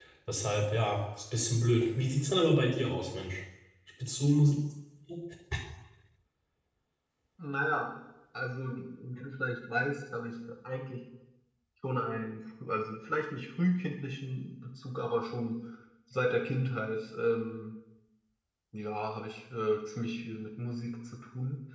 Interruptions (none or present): none